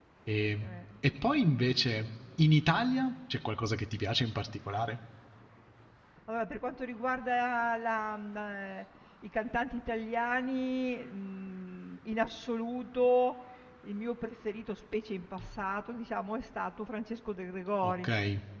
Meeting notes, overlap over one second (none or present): none